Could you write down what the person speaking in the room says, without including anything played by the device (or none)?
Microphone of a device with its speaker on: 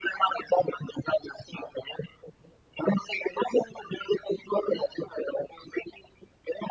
none